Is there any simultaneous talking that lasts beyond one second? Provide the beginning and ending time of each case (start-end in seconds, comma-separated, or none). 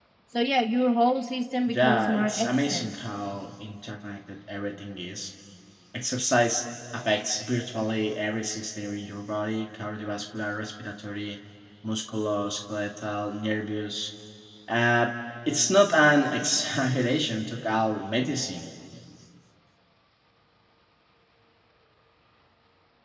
1.7-2.9